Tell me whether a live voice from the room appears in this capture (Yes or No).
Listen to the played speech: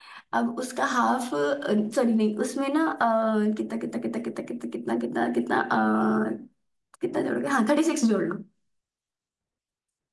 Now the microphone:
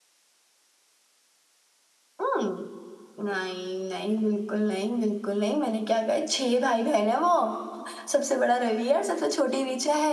Yes